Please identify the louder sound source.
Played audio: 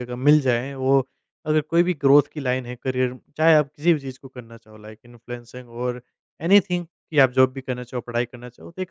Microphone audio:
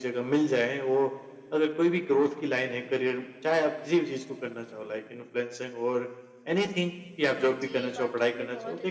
echo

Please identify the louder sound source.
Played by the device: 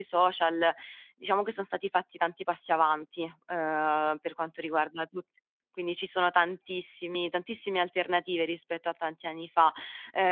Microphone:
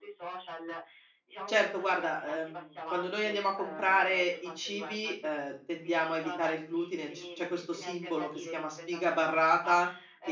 user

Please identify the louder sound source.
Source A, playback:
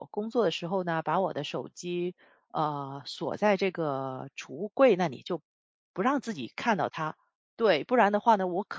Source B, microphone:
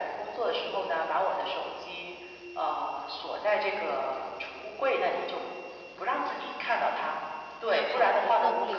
echo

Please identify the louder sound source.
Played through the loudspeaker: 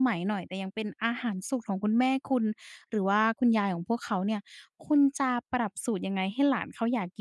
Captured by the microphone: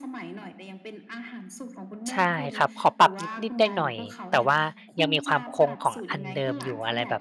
user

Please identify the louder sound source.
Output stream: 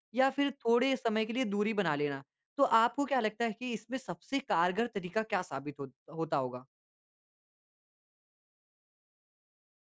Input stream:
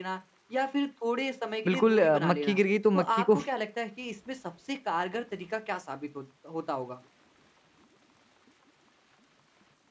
user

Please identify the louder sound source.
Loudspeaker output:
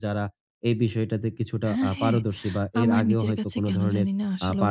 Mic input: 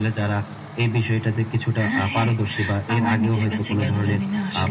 echo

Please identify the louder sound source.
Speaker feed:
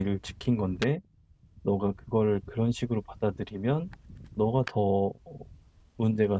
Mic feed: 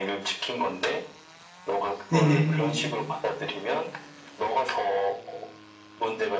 user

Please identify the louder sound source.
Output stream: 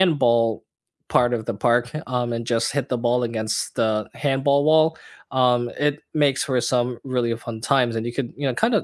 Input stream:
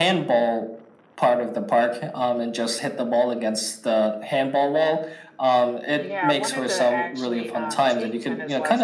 echo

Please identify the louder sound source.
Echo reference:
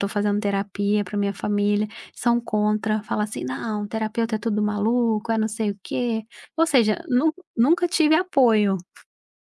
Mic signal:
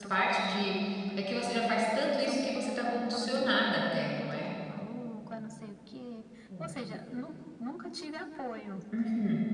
user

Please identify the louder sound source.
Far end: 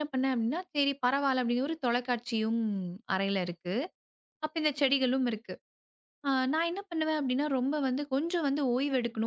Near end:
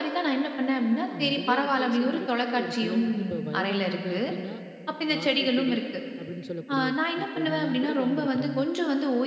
echo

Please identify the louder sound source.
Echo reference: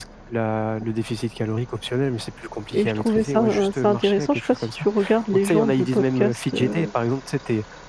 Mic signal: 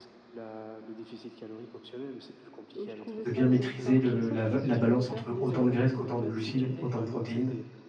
user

